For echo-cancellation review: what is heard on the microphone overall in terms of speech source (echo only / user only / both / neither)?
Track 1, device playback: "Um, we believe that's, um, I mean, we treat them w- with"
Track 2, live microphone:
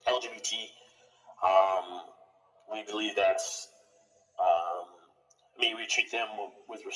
echo only